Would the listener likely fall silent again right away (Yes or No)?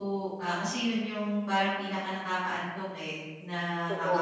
Yes